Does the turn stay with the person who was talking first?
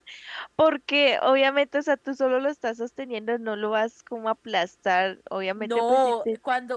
No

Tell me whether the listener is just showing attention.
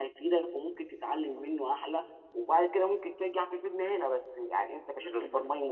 Yes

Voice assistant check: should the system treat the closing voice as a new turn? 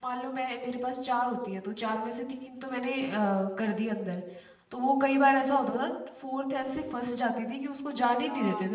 Yes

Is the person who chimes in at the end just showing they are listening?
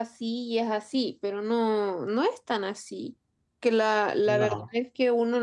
Yes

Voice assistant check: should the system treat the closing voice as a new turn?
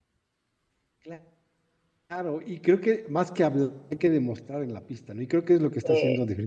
No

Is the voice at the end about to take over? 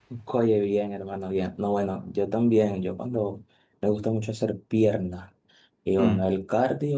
No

